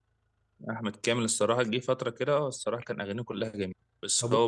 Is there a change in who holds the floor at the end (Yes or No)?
No